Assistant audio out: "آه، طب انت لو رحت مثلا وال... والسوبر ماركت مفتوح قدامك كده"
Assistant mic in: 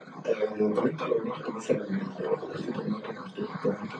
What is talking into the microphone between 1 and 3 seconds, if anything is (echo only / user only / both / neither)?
echo only